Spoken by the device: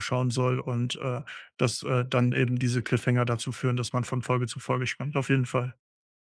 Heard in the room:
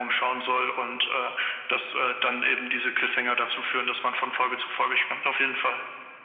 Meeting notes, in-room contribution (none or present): none